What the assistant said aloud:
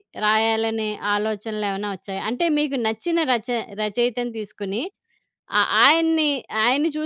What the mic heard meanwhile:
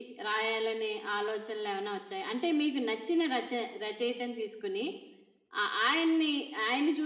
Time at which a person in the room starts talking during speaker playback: none

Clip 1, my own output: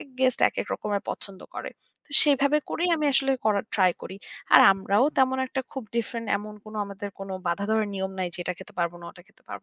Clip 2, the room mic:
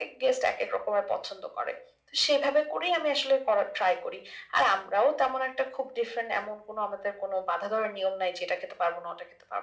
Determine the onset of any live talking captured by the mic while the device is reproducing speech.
none

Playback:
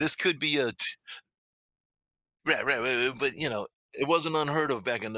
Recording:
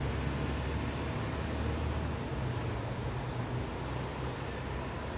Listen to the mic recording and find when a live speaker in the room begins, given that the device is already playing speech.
none

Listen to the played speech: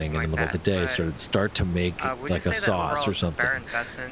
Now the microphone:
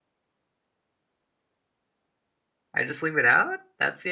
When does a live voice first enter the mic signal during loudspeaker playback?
3 s

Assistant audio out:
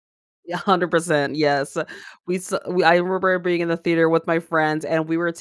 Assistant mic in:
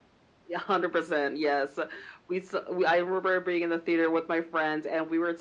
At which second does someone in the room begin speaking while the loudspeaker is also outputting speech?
none

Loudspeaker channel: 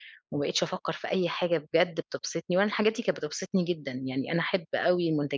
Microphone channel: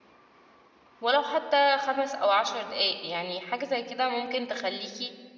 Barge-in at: 1 s

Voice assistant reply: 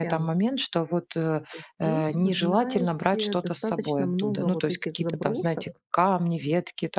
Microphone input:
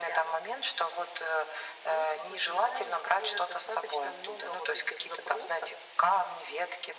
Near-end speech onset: none

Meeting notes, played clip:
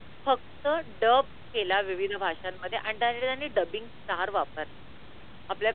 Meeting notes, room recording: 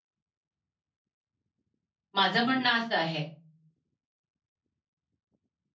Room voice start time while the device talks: 2 s

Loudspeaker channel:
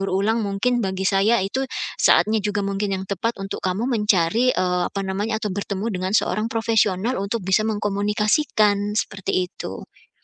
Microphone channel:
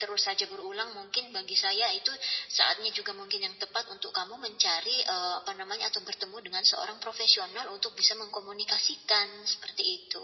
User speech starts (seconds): none

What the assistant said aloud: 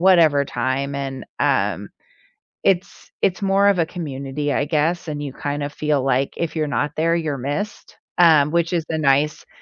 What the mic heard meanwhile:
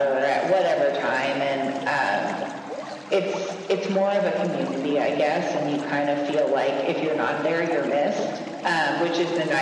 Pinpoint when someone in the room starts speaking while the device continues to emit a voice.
none

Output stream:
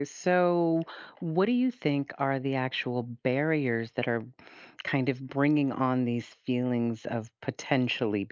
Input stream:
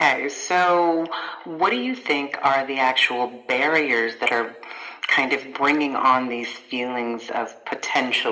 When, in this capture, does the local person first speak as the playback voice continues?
none

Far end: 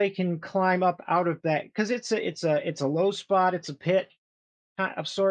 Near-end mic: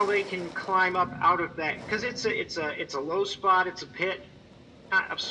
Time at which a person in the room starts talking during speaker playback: none

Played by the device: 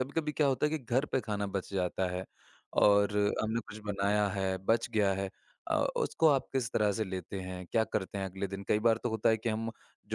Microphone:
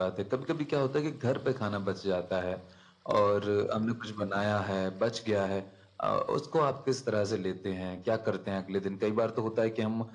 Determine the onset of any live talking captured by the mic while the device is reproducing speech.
none

